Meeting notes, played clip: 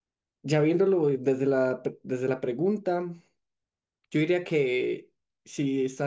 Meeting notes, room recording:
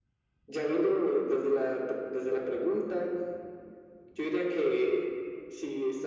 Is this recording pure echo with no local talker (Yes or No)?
Yes